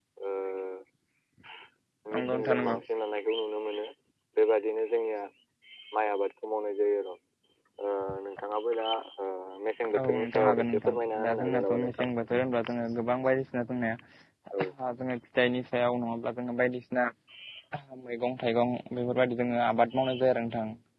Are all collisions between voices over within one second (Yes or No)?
No